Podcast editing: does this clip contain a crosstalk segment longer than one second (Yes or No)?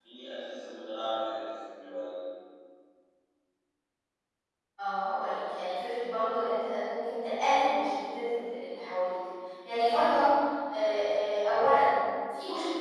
No